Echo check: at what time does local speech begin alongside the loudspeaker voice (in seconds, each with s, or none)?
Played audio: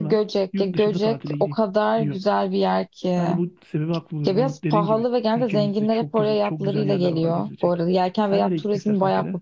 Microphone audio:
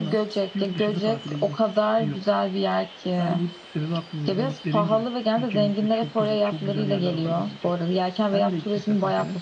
none